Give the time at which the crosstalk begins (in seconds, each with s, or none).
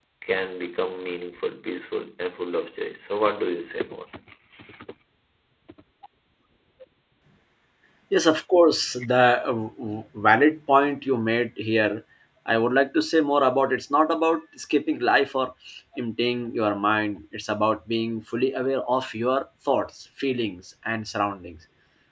none